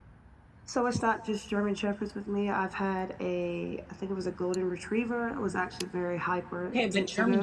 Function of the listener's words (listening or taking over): taking over